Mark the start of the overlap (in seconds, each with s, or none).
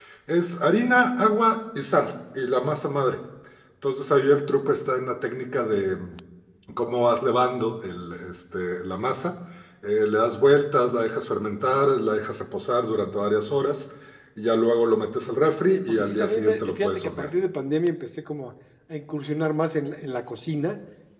15.7 s